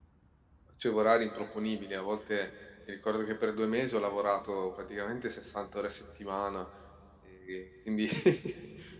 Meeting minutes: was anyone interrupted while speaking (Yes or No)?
No